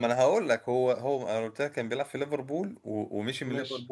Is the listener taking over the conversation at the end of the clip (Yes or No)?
No